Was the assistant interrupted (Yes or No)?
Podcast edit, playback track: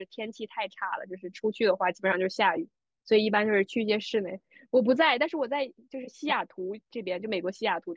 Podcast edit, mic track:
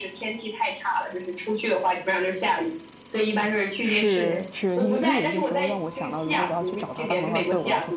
Yes